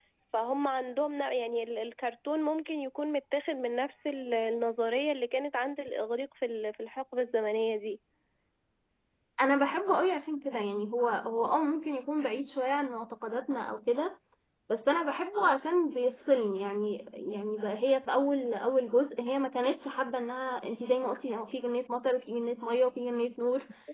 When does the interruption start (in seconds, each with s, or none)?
none